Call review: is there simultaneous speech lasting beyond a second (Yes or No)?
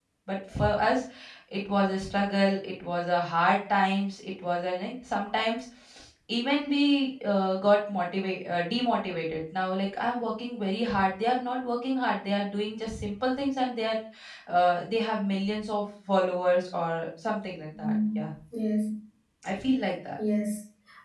No